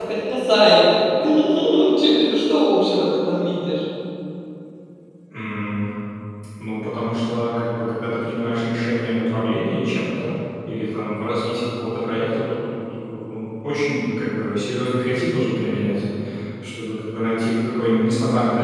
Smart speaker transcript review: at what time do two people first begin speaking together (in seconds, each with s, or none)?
none